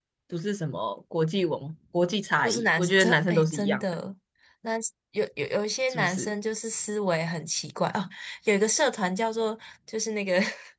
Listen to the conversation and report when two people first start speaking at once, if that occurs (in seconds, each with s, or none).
2.4 s